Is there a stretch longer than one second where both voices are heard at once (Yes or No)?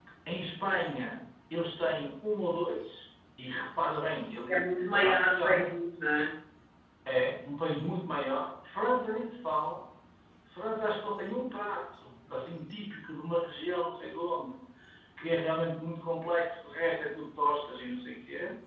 Yes